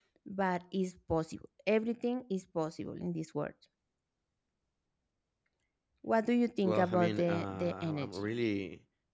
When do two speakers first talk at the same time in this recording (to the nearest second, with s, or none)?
7 s